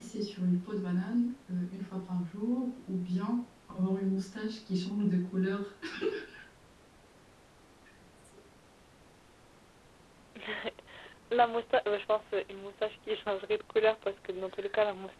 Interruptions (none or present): none